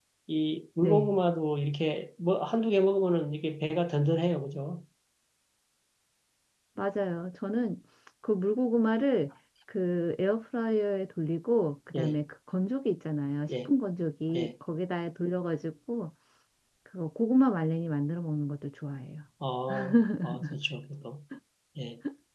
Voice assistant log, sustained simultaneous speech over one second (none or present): none